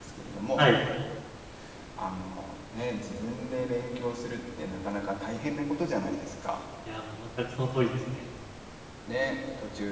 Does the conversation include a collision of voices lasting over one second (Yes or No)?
No